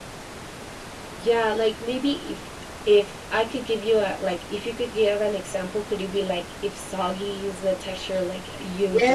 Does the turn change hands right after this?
Yes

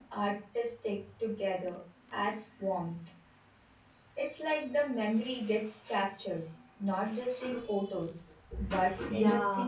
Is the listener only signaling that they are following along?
No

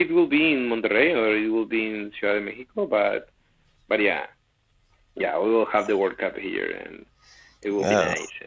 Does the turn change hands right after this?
Yes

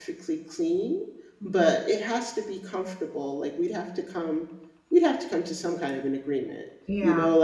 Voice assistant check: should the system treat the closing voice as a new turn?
No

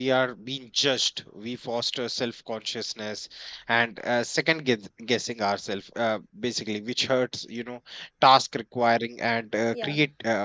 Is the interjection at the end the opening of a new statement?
No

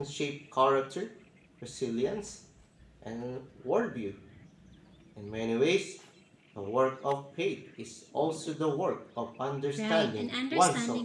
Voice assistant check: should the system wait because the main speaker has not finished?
No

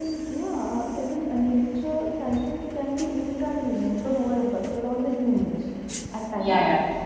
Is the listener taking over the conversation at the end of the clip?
Yes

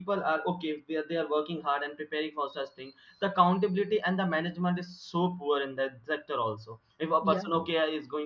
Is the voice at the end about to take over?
No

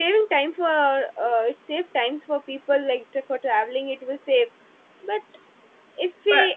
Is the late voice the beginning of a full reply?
No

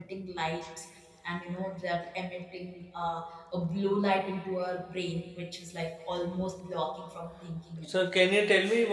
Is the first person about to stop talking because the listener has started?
Yes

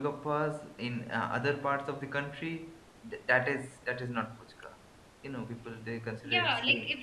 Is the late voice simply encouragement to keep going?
No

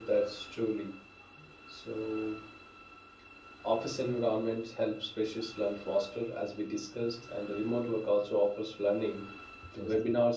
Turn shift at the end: No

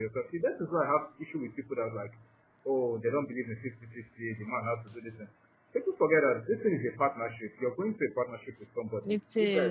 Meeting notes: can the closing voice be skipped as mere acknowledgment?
Yes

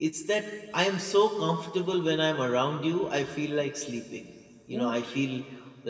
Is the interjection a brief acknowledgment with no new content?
Yes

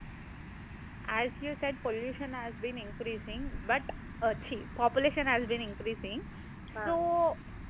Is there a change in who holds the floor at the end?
No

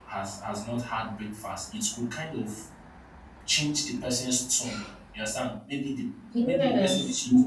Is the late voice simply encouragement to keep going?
Yes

